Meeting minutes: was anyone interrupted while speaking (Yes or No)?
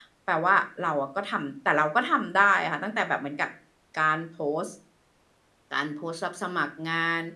No